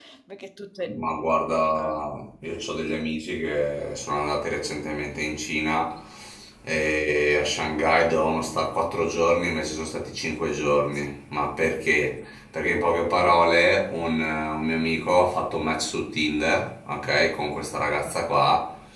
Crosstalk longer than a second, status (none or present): none